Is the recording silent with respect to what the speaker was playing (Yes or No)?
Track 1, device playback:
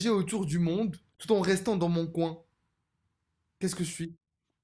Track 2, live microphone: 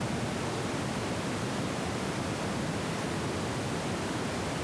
Yes